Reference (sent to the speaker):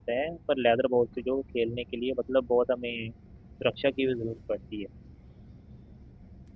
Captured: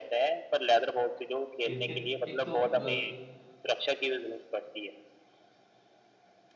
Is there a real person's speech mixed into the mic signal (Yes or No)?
Yes